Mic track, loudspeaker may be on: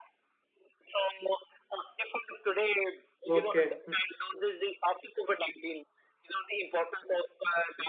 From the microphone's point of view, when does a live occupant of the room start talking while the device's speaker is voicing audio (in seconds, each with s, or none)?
3.3 s